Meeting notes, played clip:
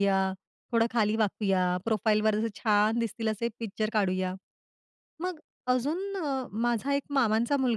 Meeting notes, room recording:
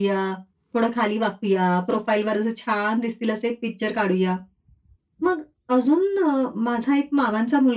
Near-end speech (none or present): none